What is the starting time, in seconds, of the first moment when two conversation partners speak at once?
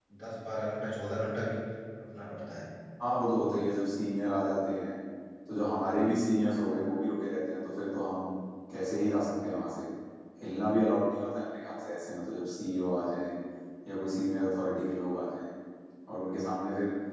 none

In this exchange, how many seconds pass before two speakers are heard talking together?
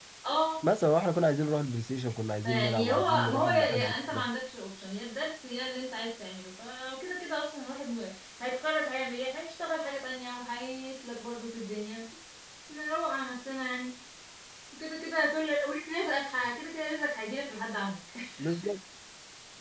2.4 s

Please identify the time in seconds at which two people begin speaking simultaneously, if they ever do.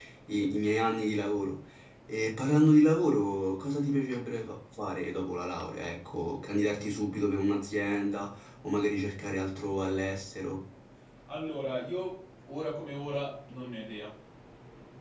none

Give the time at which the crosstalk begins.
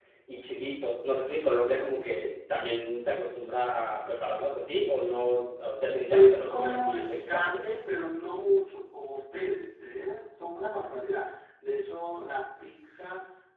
6.1 s

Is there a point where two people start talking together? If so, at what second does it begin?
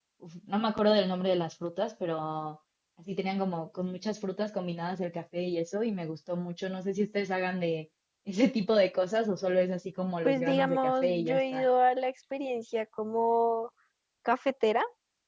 10.2 s

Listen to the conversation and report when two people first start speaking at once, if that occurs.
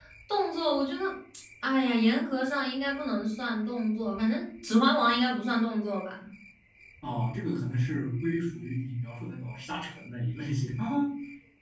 none

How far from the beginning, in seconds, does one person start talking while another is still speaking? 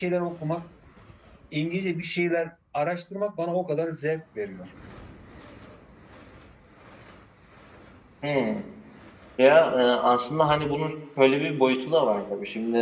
none

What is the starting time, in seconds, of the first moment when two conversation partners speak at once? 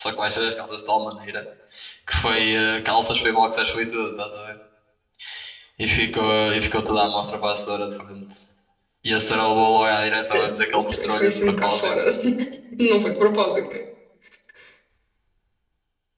10.3 s

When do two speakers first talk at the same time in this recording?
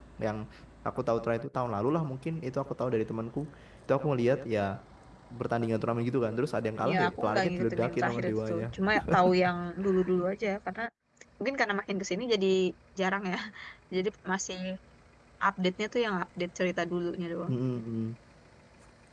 6.8 s

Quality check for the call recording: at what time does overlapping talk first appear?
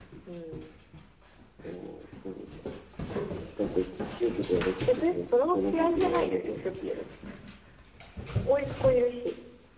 4.9 s

